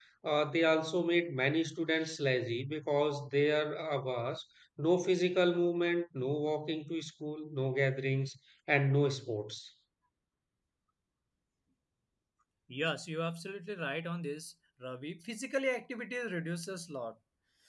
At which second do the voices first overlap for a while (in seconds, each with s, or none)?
none